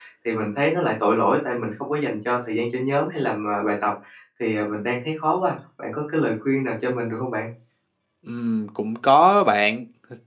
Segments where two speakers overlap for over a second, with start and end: none

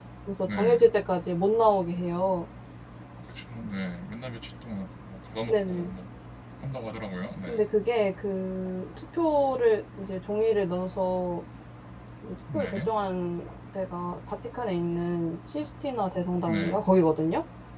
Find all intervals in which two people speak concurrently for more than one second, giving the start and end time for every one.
none

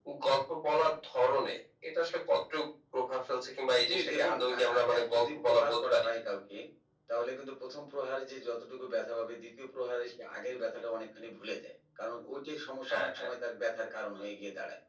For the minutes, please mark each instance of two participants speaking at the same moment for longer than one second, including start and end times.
3.9-6.0

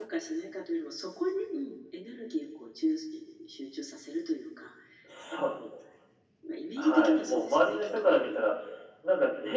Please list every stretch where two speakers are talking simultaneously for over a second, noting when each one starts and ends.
6.8-8.4

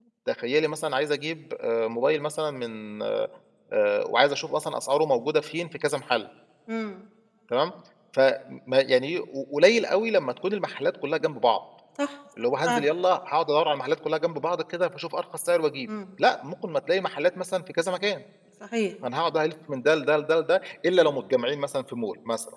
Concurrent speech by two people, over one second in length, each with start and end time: none

